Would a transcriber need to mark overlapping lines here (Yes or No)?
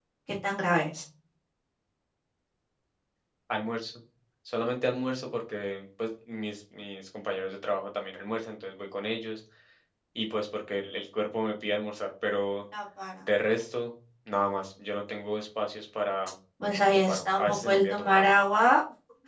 Yes